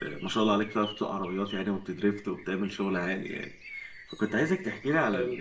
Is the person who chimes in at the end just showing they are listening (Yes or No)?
Yes